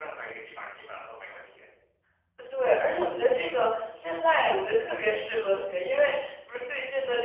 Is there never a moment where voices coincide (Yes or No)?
Yes